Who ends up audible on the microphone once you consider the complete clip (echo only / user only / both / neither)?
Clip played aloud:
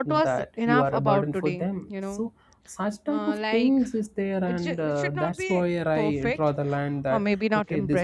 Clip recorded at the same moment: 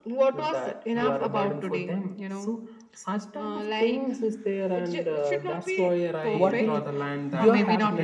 both